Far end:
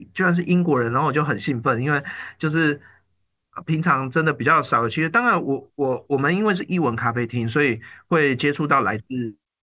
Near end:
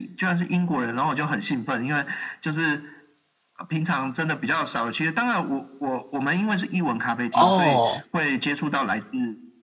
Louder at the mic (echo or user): user